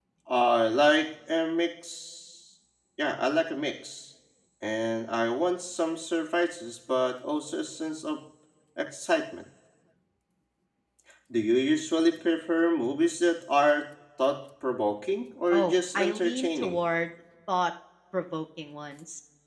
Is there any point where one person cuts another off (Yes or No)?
Yes